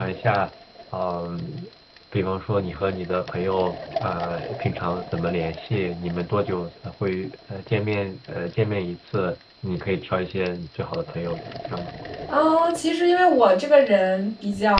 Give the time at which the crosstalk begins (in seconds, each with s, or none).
none